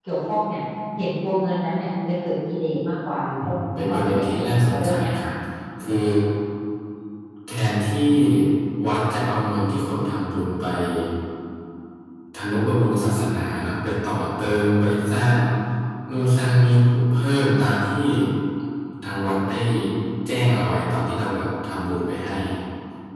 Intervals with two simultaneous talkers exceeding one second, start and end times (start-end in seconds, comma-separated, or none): 3.5-5.3